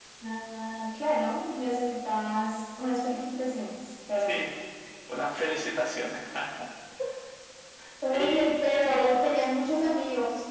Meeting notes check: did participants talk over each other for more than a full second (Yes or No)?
No